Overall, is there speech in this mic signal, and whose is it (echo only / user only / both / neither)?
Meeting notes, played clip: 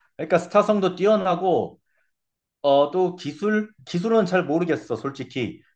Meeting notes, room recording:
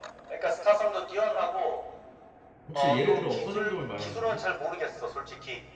both